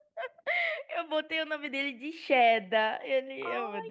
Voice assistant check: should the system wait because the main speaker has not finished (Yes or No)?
No